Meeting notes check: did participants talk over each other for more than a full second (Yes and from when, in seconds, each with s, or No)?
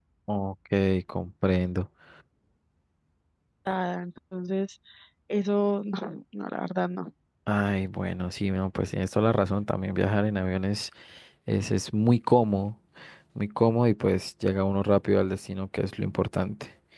No